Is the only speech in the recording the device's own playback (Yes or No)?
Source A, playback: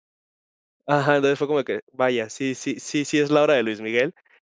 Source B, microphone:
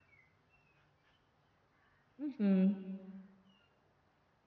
No